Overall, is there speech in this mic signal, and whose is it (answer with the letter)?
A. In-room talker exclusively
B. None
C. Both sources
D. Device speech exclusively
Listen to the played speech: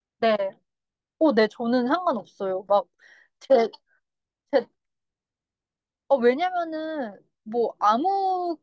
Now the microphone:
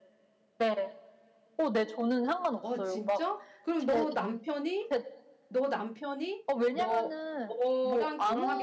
C